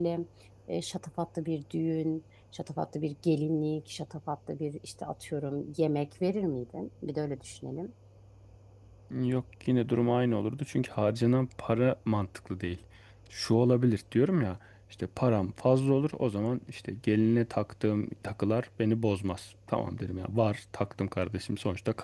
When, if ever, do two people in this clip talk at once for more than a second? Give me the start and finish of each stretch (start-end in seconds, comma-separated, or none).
none